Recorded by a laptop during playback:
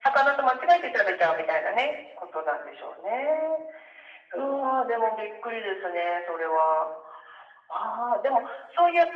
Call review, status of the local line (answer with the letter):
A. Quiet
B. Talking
A